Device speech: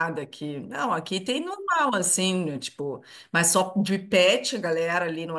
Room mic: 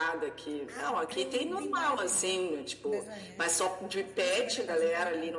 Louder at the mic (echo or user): echo